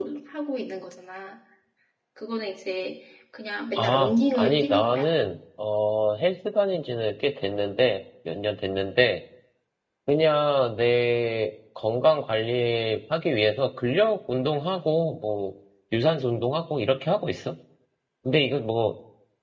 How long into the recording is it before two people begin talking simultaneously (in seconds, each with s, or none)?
3.8 s